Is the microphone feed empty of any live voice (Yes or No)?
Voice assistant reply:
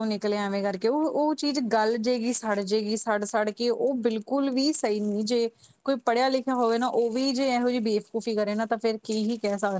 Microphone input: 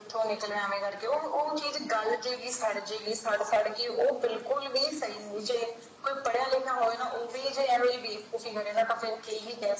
Yes